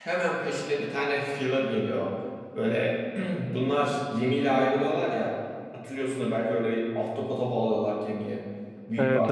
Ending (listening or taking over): taking over